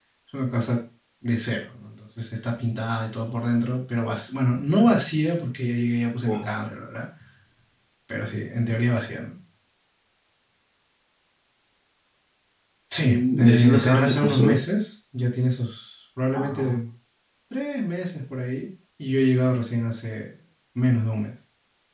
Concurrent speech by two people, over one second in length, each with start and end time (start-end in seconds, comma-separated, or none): 13.0-14.6